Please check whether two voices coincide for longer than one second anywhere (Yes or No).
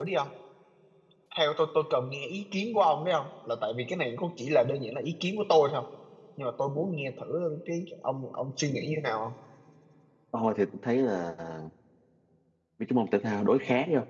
No